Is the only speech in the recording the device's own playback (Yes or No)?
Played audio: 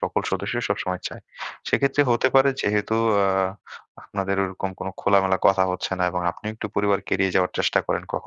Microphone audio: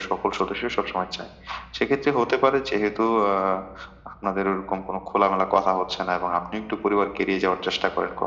Yes